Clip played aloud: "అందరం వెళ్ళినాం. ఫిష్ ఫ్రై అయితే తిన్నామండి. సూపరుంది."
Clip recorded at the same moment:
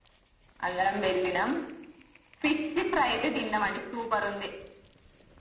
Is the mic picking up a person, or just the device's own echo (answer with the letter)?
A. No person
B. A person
A